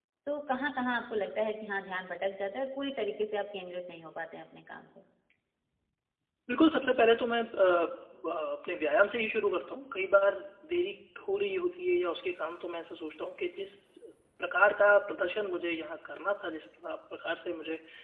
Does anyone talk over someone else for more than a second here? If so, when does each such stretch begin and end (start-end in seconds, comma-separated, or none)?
none